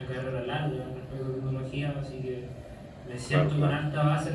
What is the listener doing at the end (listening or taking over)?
listening